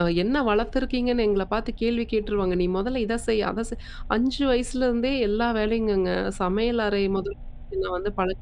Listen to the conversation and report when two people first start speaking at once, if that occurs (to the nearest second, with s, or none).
none